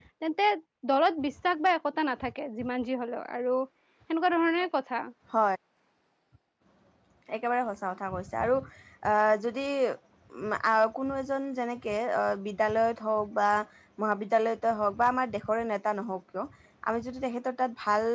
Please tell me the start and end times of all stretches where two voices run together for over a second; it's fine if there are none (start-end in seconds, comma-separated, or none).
none